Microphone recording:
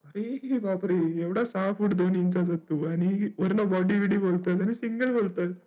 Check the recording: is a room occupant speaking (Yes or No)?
No